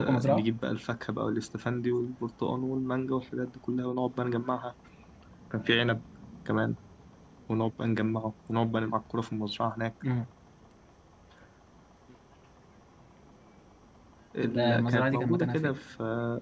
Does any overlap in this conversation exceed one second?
Yes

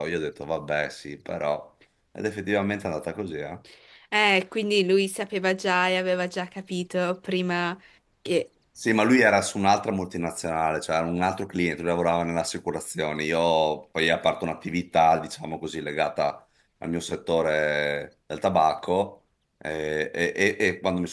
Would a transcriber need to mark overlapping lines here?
No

